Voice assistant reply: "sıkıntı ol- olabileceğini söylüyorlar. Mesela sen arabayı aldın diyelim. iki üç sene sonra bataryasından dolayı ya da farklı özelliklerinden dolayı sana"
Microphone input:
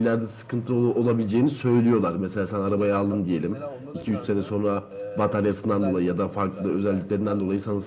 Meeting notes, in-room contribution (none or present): present